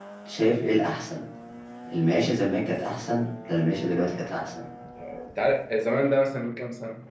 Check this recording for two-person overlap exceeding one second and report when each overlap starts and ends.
none

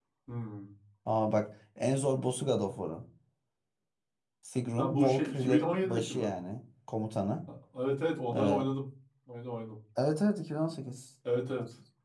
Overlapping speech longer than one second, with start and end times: 4.8-6.3

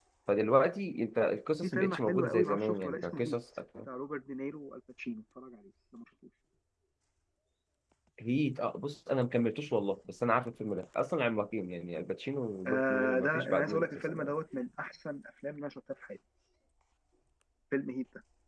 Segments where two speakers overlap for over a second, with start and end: 1.6-3.4, 12.7-14.3

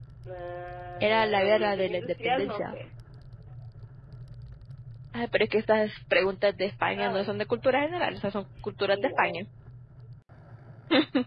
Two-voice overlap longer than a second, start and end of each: 1.0-2.8

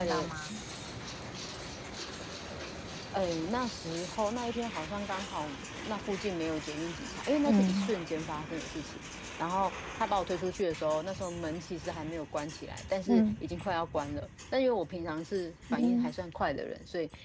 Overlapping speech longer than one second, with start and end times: none

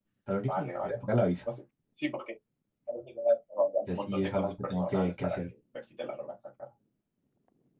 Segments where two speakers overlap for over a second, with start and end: 3.9-5.4

